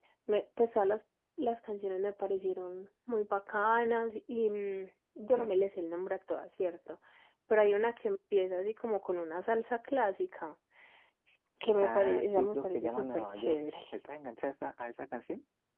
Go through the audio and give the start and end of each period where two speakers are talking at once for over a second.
11.8-13.6

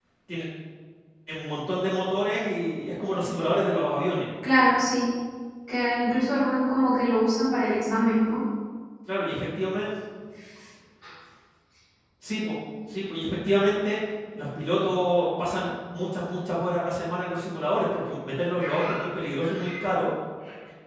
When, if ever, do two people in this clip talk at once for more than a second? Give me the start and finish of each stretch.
none

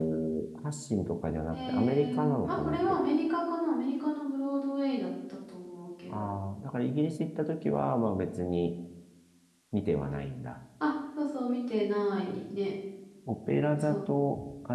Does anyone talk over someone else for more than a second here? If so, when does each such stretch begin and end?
1.5-2.8

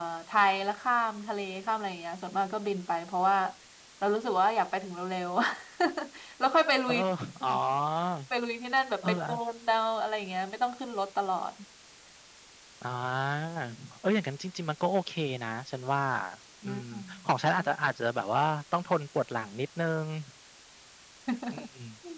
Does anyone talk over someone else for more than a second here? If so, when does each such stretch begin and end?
none

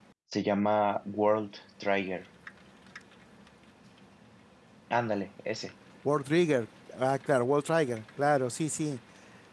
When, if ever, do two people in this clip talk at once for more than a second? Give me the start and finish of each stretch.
none

